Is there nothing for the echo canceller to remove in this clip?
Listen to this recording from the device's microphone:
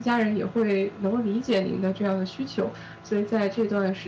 Yes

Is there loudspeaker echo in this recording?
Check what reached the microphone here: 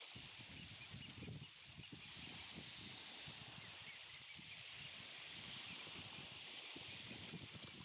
No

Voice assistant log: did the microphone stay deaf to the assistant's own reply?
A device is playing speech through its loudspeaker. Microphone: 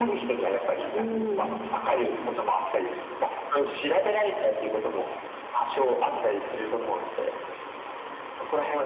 No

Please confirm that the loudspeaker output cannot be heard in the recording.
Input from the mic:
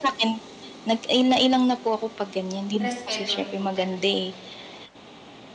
No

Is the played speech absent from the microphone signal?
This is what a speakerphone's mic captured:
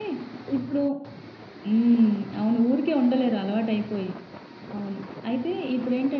Yes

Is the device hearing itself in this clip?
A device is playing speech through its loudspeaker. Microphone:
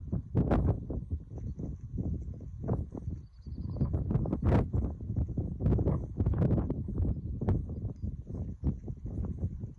No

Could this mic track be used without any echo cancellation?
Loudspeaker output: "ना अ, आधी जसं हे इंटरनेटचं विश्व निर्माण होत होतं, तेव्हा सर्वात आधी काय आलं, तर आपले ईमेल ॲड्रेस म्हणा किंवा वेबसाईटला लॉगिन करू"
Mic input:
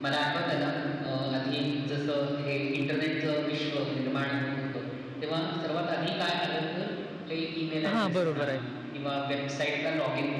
No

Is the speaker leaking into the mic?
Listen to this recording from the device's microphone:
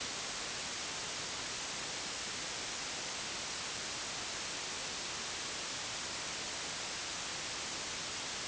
No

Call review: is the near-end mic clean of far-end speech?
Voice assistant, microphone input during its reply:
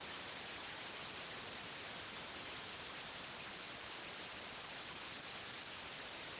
Yes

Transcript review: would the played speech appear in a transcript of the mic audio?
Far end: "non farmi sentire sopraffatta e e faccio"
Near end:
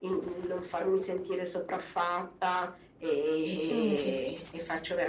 Yes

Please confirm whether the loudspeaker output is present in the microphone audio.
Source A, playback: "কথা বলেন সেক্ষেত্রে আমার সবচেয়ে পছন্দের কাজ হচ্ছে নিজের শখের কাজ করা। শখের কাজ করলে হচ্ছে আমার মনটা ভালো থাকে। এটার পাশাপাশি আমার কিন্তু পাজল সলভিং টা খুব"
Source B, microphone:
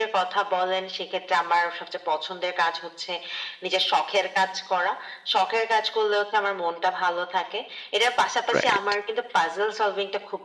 Yes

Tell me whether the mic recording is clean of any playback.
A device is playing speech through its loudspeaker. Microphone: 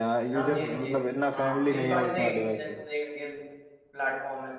No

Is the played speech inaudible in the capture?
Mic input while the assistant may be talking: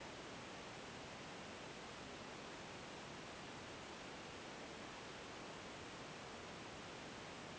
Yes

